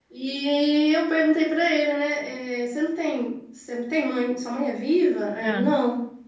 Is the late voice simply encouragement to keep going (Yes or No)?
Yes